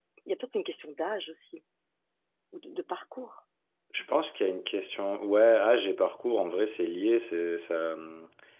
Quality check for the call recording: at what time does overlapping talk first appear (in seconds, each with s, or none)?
none